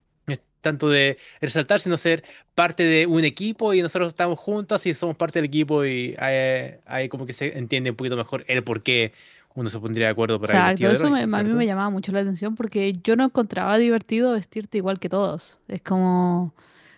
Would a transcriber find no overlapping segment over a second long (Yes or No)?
No